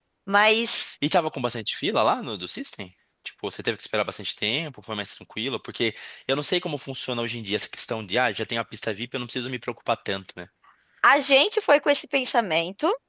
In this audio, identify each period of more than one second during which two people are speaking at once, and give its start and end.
none

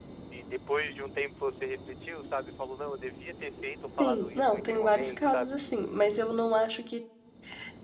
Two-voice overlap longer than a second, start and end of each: 4.0-5.5

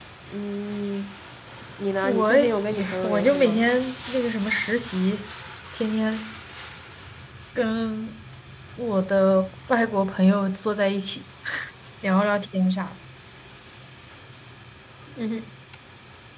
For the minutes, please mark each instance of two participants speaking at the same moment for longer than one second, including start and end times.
2.0-3.6

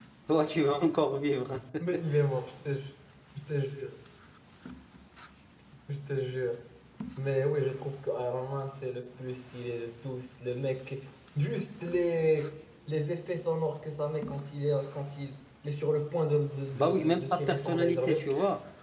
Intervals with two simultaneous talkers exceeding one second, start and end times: 16.7-18.2

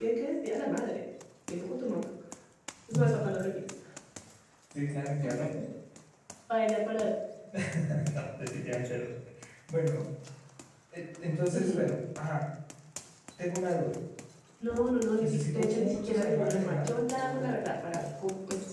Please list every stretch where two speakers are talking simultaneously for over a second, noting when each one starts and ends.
15.2-18.0

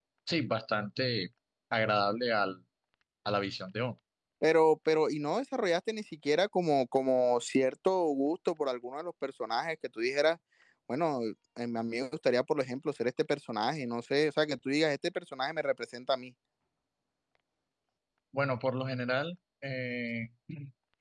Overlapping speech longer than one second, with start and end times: none

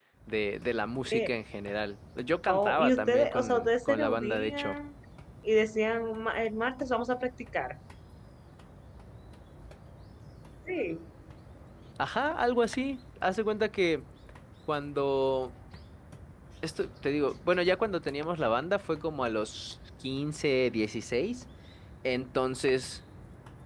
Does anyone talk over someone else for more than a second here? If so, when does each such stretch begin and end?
2.5-4.8

